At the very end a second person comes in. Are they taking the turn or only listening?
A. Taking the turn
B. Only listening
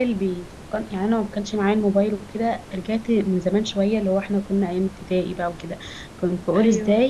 B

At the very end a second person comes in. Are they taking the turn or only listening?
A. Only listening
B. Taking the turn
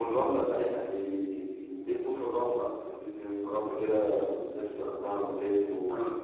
A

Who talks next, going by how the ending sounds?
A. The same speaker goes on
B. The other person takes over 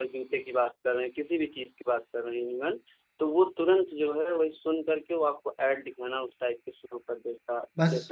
B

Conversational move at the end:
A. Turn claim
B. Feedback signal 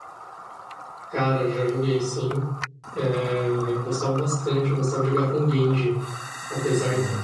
B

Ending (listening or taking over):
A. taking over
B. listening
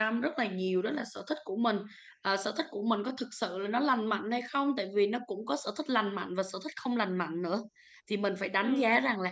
B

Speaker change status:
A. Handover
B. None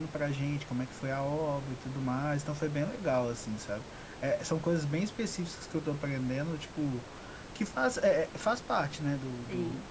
B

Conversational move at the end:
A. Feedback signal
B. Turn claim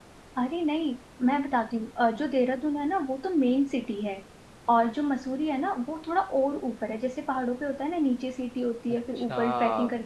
A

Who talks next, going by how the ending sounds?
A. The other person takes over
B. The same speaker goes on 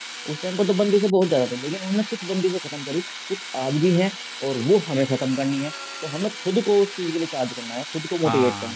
B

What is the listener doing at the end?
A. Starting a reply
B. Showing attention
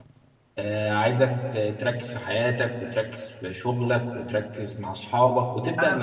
A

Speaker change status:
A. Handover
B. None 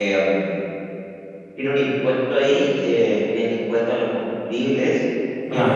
B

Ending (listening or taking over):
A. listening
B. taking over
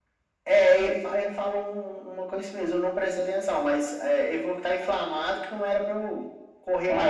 B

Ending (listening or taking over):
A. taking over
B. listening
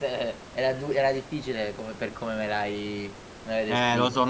A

